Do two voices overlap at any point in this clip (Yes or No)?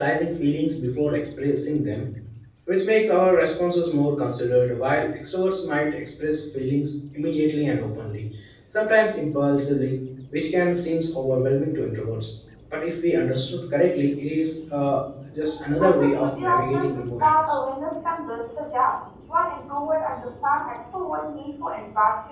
Yes